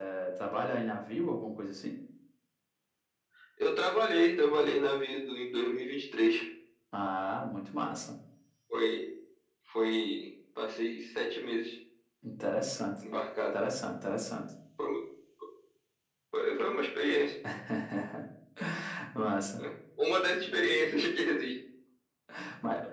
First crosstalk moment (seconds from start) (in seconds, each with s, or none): none